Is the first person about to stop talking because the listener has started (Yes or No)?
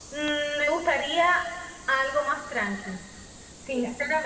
No